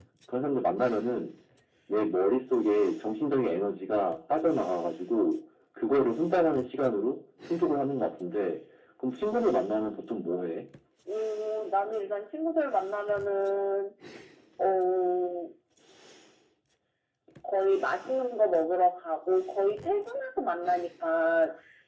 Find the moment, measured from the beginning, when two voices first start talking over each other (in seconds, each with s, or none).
none